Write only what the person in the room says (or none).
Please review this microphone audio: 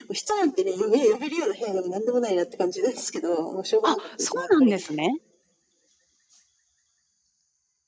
あ、そうなんですね。